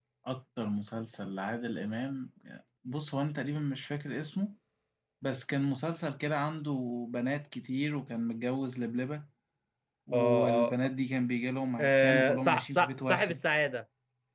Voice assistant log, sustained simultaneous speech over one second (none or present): present